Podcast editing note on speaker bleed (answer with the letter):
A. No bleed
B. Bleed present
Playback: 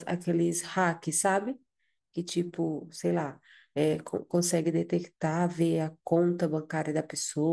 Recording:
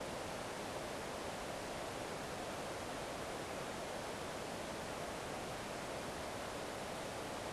A